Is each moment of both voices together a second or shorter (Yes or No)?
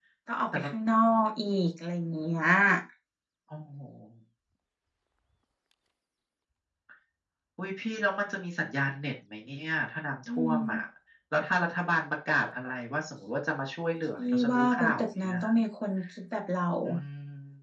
No